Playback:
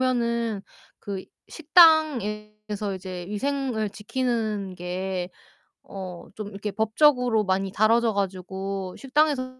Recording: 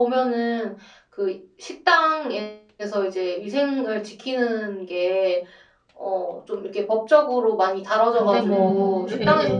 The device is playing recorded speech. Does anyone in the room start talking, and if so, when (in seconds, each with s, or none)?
8.1 s